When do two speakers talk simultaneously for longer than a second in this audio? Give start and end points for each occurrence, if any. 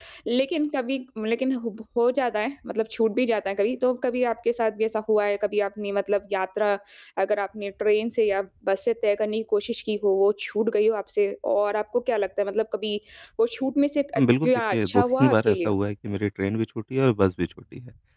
14.2-15.7

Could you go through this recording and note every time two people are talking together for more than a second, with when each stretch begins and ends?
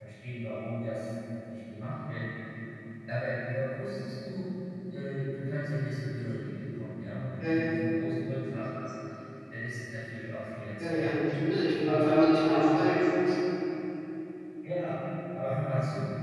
11.9-13.1

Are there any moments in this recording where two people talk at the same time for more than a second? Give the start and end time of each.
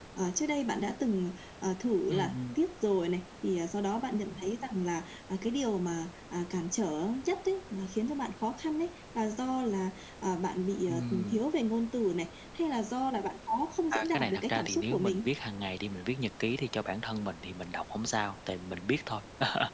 13.9-15.3

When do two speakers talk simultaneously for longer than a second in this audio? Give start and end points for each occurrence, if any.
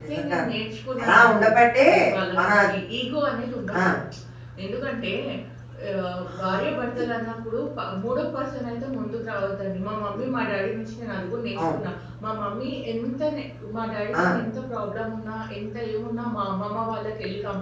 none

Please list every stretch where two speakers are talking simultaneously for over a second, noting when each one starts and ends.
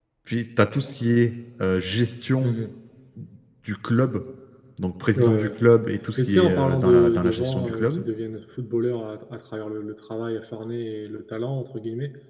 6.2-8.0

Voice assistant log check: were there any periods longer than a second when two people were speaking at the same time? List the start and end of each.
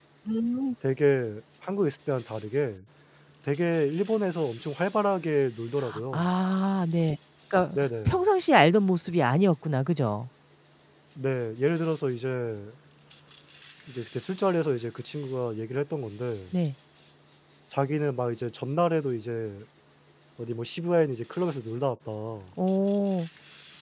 none

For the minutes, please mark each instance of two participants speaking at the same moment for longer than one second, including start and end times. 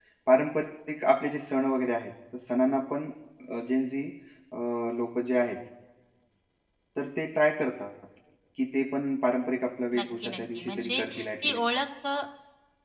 10.0-11.7

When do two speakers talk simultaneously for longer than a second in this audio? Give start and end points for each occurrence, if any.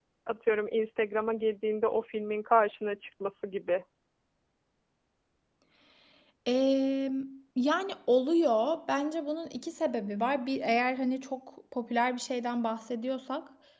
none

